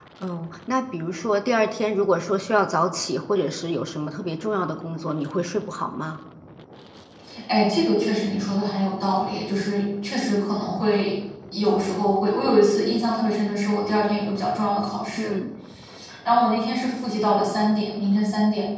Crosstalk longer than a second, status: none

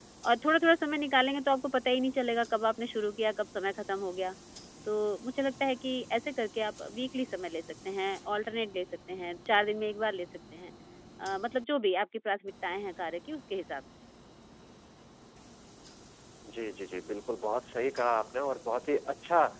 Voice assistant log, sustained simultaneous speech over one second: none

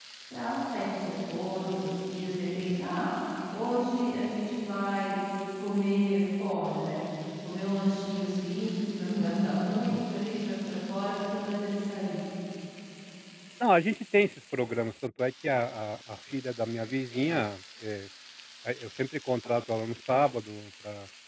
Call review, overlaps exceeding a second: none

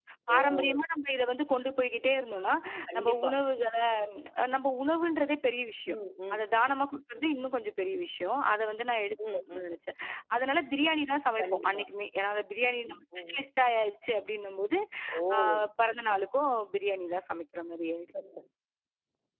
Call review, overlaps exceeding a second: none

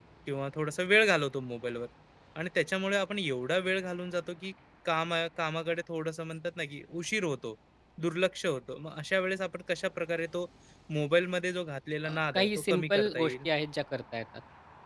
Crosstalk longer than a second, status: present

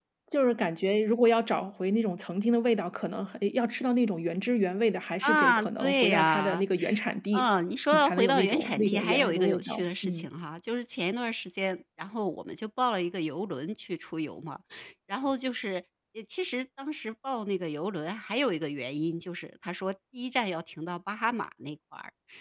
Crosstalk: present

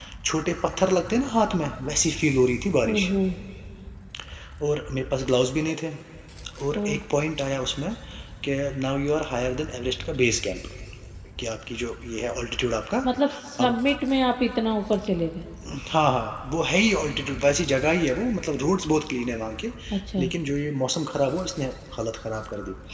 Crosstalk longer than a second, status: none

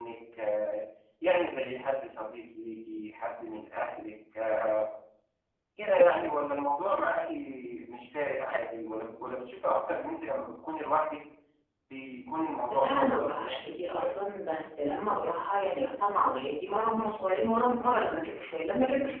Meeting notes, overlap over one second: present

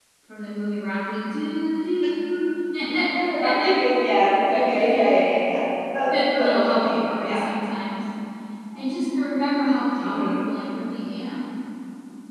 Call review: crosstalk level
present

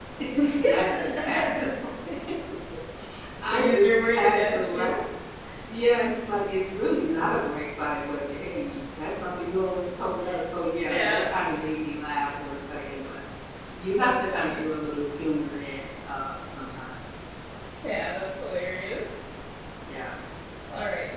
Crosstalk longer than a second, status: present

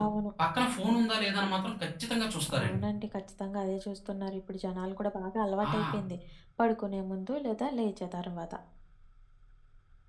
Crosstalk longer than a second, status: none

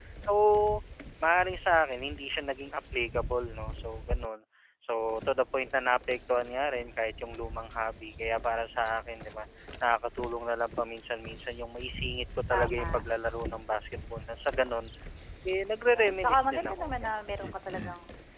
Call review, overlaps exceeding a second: present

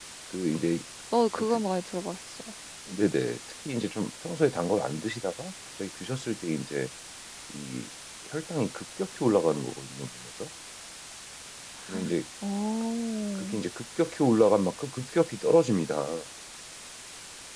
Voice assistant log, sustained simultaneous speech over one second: none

